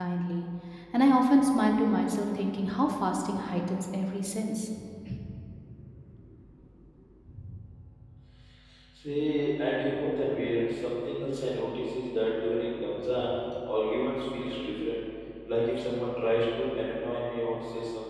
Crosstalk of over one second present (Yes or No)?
No